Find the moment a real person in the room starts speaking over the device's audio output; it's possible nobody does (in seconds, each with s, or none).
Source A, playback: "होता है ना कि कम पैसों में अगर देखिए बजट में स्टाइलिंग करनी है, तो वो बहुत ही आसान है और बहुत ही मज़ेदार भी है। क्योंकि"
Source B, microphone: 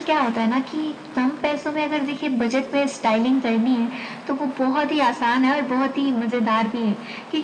none